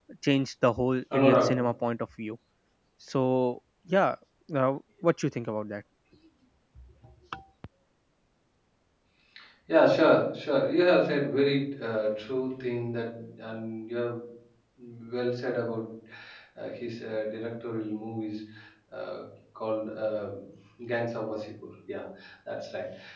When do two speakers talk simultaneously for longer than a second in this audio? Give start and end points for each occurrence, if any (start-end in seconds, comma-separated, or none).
none